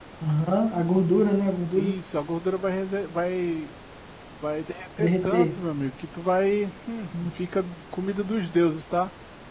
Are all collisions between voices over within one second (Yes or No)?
Yes